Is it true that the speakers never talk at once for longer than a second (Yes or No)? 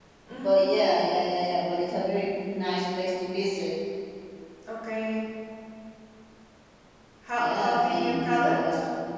No